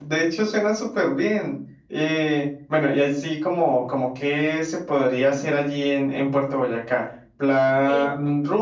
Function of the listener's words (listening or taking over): listening